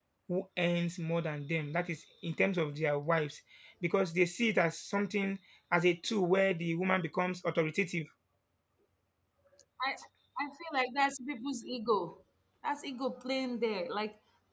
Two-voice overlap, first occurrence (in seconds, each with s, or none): none